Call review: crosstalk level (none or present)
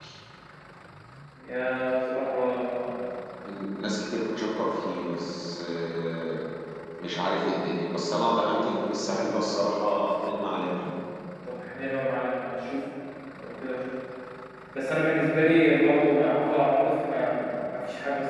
none